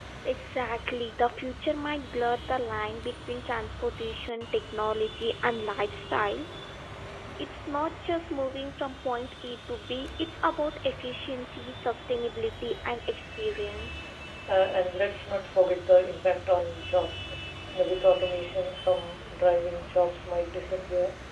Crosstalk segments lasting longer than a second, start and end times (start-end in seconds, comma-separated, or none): none